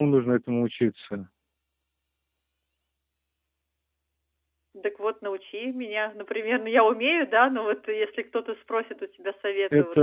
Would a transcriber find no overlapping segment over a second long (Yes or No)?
Yes